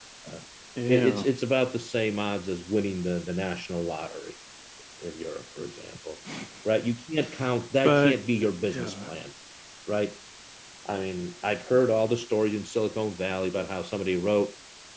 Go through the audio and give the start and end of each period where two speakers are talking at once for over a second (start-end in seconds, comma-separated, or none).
7.8-9.1